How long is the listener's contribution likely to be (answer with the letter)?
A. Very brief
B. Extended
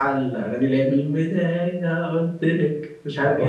B